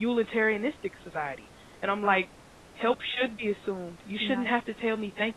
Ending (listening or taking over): listening